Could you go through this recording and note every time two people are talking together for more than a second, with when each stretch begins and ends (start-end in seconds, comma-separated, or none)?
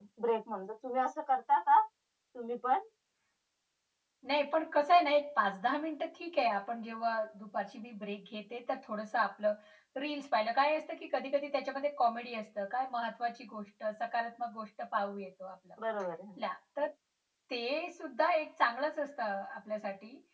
none